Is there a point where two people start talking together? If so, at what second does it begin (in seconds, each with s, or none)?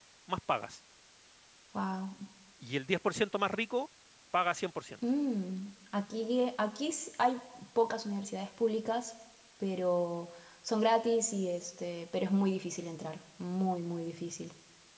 none